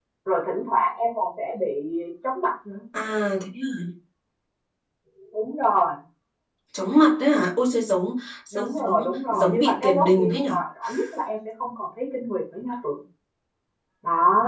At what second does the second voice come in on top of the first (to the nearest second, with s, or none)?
9 s